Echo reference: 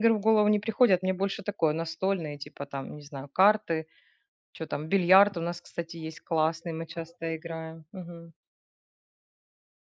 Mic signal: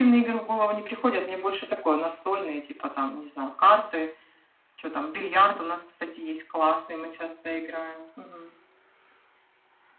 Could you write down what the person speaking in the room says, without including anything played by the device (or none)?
none